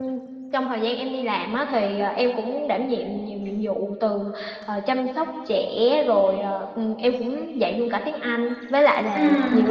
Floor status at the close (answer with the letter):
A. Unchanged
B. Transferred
A